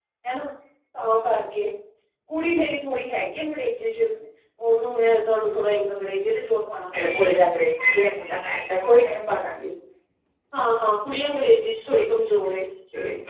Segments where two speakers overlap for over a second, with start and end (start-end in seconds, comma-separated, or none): none